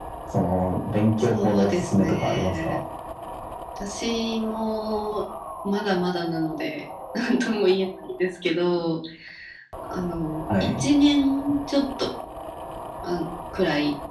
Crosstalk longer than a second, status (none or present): present